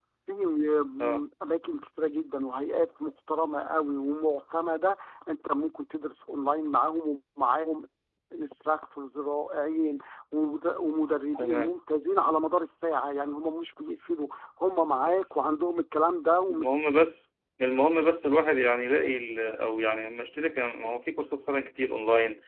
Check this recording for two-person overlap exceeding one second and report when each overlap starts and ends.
none

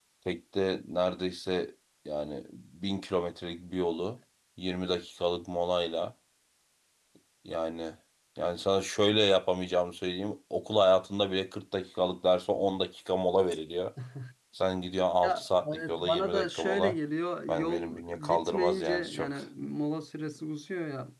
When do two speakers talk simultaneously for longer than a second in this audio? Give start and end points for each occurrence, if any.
15.2-17.0, 17.5-19.4

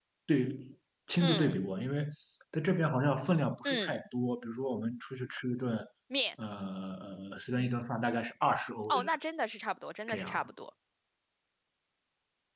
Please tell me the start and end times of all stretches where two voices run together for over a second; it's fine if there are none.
none

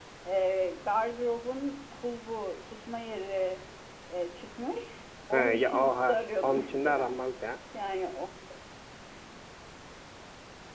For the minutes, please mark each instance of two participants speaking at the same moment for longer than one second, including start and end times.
5.3-7.2

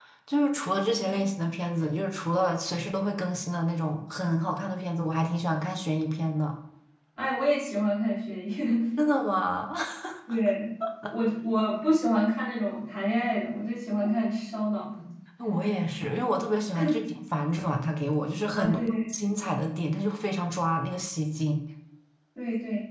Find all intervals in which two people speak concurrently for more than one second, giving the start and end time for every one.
none

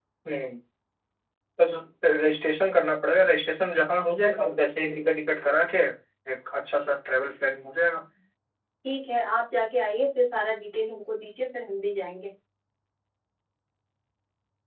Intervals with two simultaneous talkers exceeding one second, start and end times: none

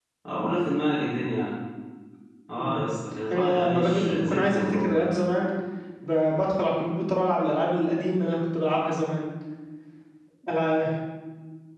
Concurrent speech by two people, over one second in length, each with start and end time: 3.3-5.1

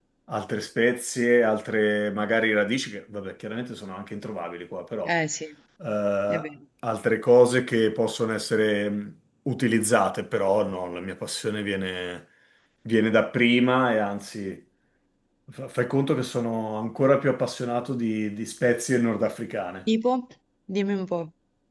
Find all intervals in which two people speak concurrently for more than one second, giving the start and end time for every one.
none

